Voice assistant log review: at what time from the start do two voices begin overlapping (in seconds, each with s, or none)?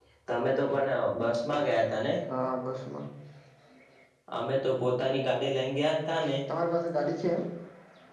none